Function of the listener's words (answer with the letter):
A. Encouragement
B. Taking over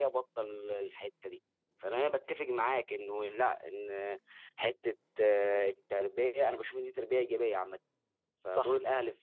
A